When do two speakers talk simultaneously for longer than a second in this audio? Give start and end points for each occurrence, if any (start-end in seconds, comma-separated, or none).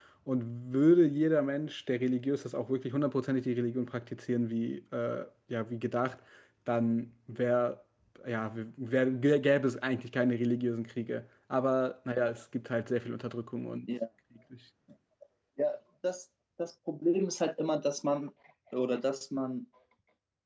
none